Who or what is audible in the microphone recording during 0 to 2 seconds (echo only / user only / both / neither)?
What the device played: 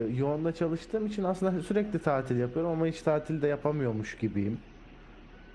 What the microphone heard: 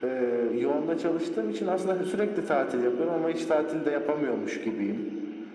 echo only